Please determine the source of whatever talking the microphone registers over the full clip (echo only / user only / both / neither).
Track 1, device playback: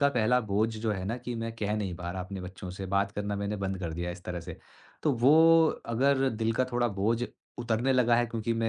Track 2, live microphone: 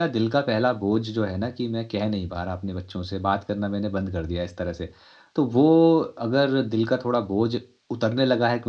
echo only